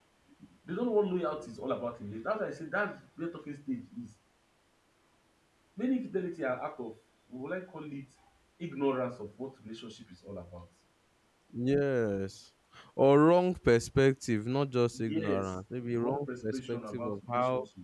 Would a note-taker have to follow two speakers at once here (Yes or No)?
Yes